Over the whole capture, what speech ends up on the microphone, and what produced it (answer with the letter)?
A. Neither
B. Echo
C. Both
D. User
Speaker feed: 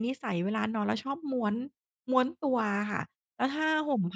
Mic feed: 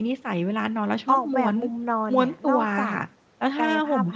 C